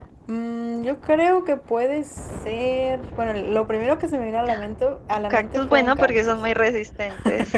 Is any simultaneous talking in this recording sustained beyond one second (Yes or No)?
Yes